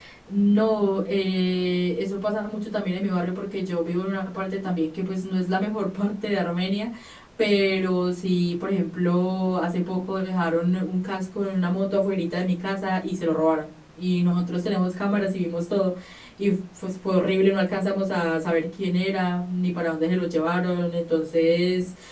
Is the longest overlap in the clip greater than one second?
No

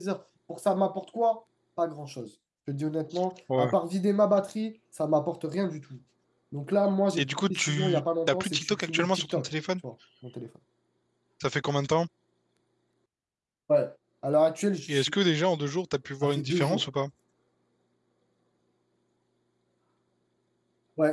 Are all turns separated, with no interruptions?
No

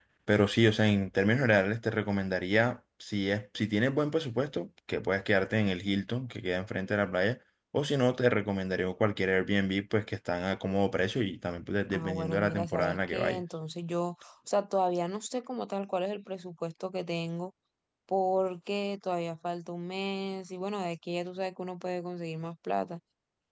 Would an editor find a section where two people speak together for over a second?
Yes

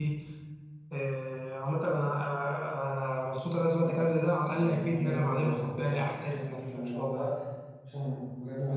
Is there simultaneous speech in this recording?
Yes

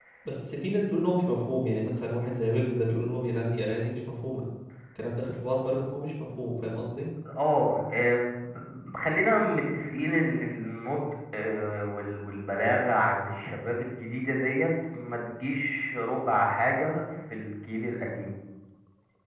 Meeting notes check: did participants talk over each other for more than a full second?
No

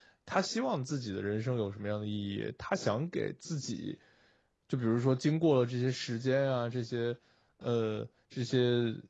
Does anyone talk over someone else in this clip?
No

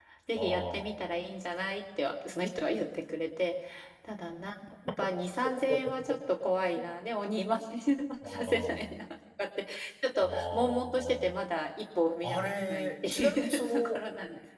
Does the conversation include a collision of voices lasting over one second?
Yes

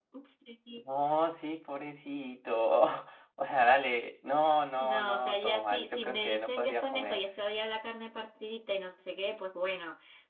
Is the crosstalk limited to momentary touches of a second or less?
No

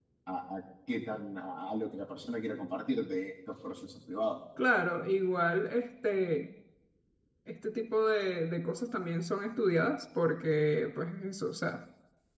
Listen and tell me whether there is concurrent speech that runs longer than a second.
No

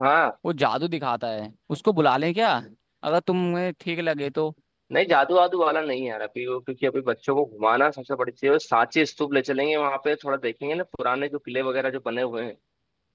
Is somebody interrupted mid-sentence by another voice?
No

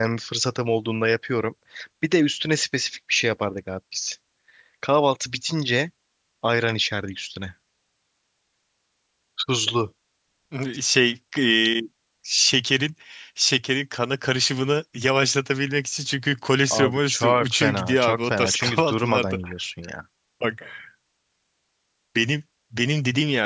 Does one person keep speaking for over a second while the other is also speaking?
Yes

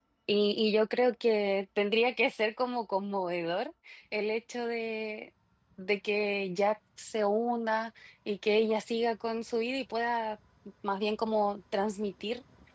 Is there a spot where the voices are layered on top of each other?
No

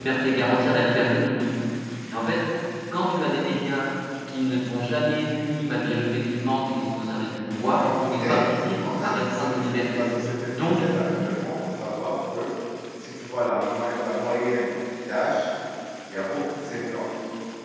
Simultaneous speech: Yes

